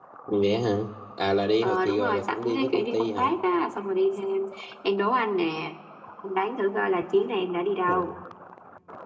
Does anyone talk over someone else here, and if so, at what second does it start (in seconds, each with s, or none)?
1.6 s